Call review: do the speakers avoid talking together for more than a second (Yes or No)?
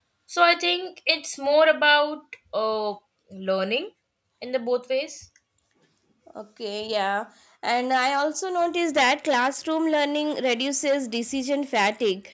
Yes